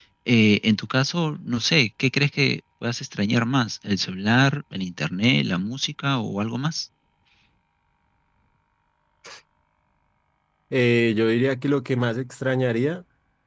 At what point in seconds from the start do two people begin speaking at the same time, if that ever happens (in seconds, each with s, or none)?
none